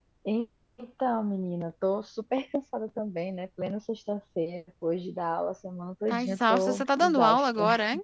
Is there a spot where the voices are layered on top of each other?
Yes, from 6.1 s

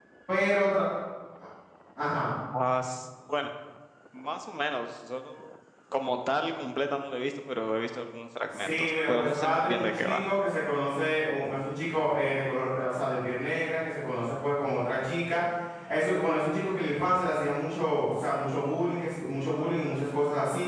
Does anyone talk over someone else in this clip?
Yes, from 8.5 s

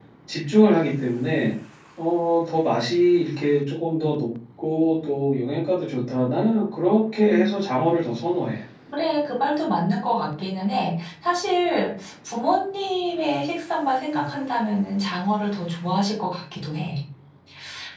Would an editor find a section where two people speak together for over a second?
No

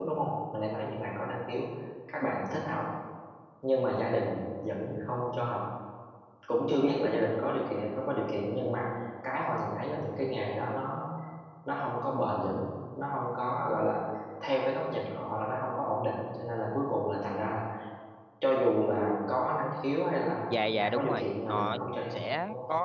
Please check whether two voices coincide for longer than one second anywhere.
Yes, from 20.5 s

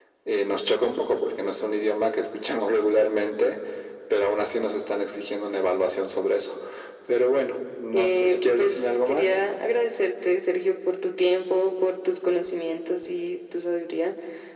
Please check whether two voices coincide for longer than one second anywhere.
Yes, from 7.9 s

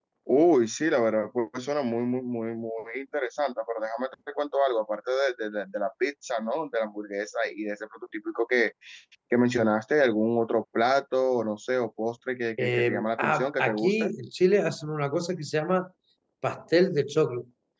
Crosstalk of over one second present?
Yes, from 12.6 s

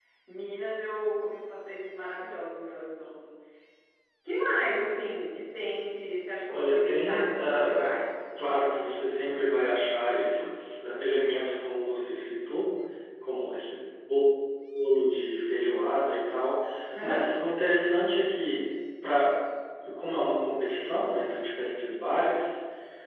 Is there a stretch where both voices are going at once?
Yes, from 6.5 s

